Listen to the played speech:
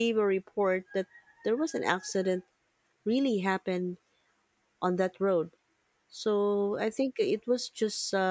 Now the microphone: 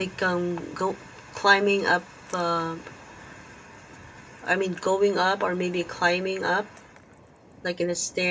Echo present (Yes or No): No